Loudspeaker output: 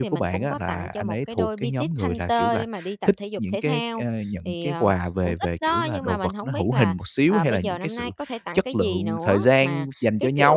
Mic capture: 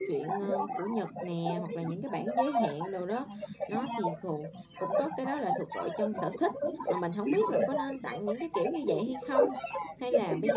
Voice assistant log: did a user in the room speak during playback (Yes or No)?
Yes